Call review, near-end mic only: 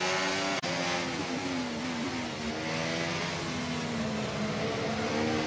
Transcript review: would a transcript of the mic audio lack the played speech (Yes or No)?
Yes